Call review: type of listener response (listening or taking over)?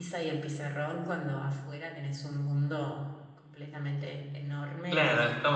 taking over